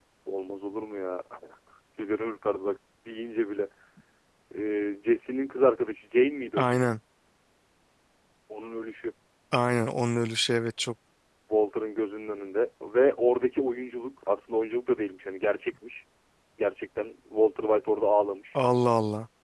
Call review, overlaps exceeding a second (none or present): none